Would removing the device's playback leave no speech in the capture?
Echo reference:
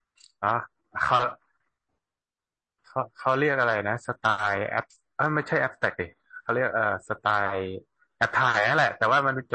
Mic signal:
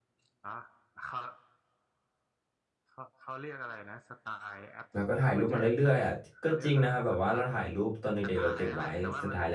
No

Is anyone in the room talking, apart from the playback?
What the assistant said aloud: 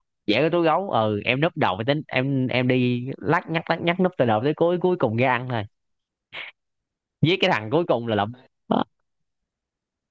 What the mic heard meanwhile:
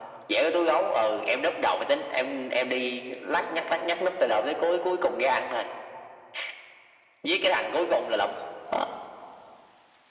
No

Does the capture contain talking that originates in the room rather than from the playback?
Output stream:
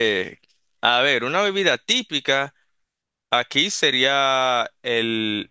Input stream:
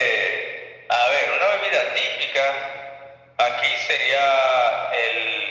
No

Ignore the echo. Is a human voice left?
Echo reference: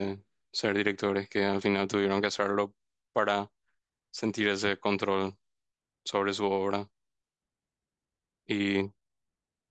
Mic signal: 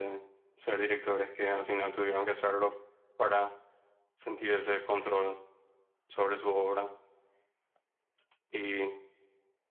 No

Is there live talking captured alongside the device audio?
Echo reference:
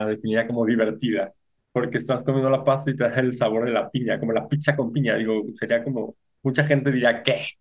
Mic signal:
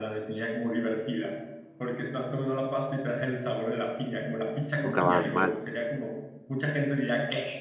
Yes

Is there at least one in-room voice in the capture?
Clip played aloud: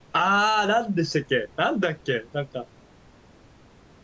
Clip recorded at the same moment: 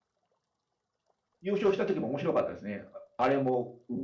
Yes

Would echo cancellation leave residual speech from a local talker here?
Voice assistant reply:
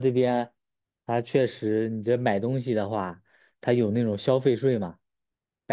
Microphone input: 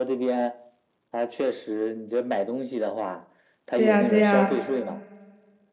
Yes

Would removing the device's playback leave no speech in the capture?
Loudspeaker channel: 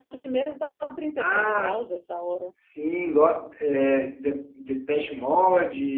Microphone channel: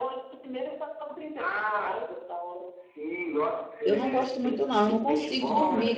No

